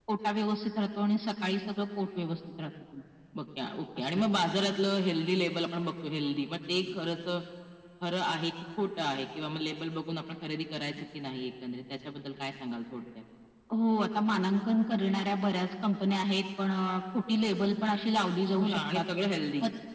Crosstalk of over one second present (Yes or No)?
No